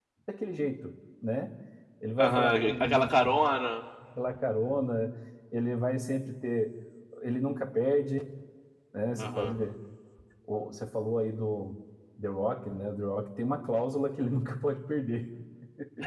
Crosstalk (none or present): present